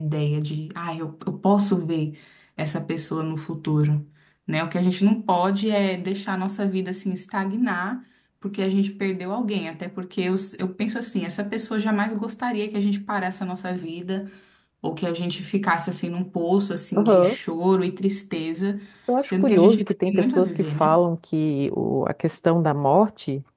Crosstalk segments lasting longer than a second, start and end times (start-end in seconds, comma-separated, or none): 19.2-21.0